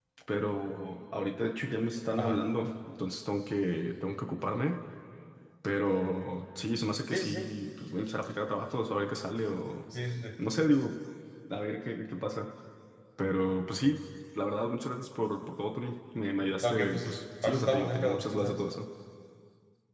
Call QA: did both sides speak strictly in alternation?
No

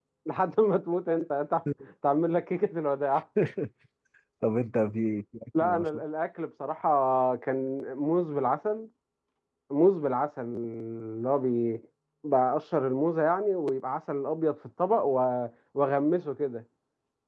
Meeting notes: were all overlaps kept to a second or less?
Yes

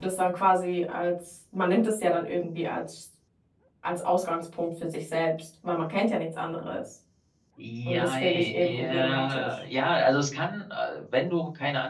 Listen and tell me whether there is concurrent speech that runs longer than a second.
Yes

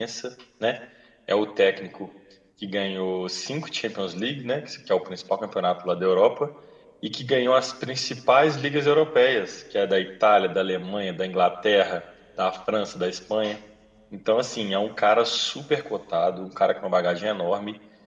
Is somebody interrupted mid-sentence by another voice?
No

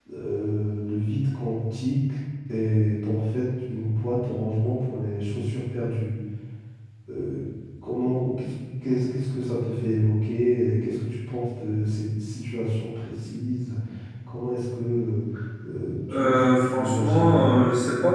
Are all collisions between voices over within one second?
No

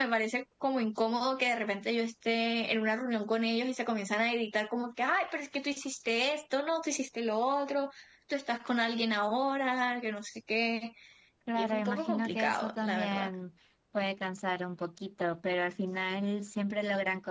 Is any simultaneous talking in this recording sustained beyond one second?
Yes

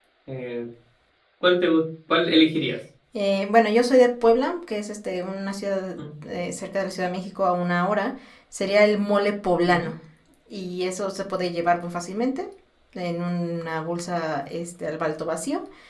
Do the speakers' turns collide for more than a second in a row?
No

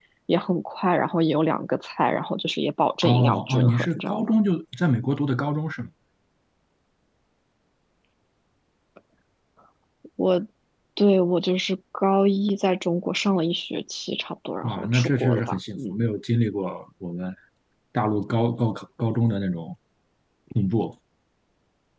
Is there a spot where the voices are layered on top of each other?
Yes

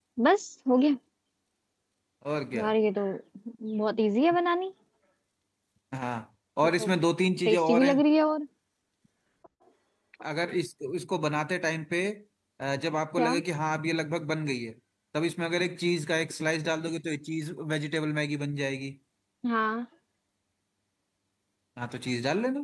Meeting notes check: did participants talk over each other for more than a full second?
No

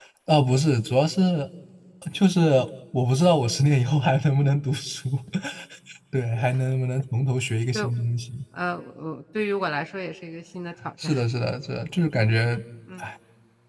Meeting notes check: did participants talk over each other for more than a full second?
No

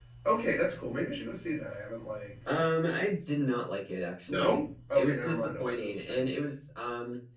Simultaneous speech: Yes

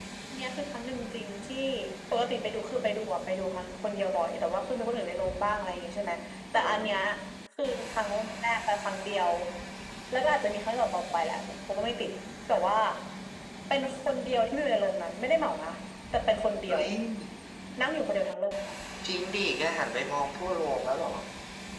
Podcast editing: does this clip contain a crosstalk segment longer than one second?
No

